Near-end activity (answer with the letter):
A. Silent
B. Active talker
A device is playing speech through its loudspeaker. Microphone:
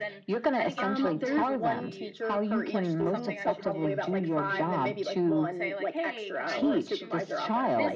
B